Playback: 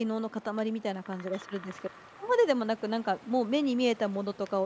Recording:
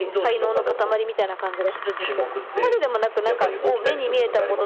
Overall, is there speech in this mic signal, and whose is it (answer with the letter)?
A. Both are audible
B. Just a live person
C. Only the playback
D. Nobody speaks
A